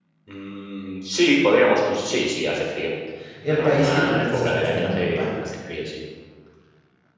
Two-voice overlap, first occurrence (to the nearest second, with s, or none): 3 s